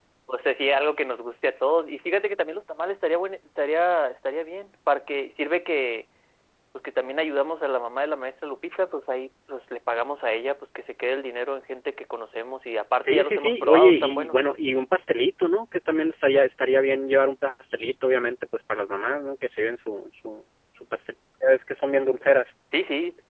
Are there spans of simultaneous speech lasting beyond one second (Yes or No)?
Yes